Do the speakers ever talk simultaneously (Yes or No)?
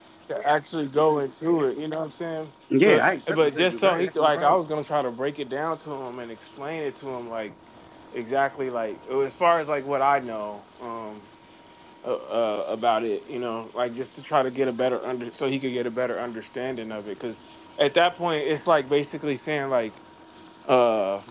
Yes